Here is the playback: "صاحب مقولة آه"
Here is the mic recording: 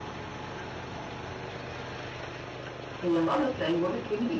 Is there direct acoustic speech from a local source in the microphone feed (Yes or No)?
Yes